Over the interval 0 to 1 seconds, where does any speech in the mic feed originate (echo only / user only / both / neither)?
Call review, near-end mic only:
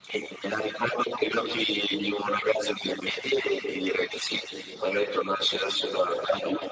echo only